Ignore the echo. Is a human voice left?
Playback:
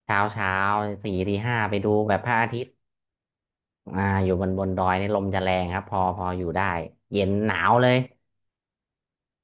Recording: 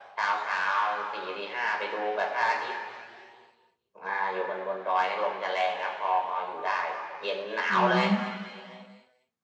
Yes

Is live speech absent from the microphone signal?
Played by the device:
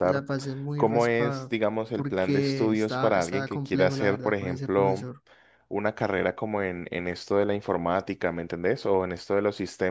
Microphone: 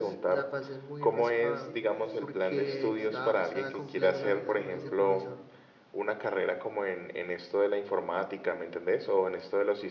No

